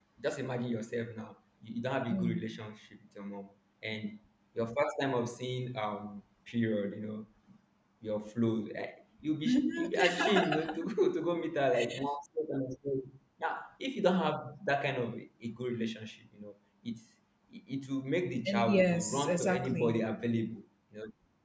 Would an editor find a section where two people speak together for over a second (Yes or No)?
Yes